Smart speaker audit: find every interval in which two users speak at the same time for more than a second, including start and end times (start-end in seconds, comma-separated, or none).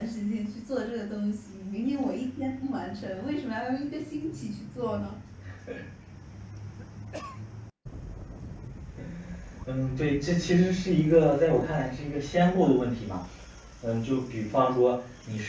none